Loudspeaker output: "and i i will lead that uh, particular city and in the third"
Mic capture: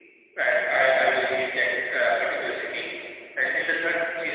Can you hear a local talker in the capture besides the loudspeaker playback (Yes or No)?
No